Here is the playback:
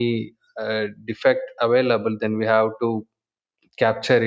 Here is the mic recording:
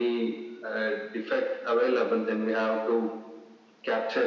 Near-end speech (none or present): none